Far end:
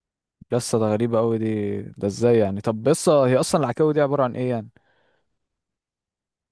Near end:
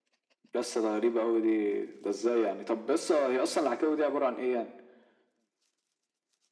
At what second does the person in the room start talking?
none

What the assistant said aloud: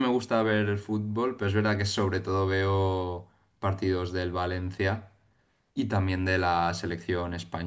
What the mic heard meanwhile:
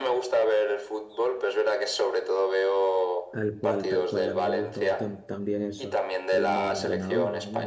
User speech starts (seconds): 3.3 s

